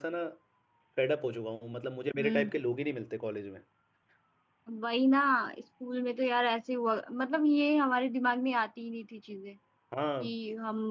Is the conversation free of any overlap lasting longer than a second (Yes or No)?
Yes